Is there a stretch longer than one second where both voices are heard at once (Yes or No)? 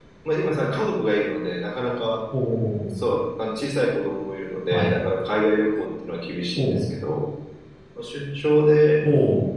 No